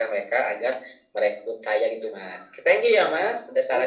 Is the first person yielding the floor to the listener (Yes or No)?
Yes